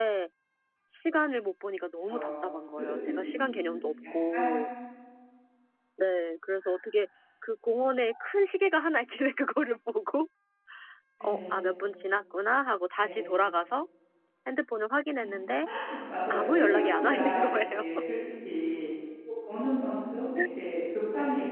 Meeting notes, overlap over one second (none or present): present